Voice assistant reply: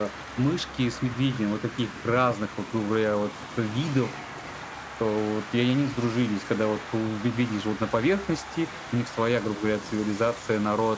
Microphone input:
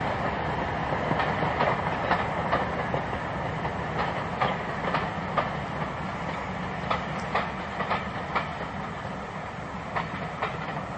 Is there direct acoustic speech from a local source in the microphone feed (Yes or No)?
No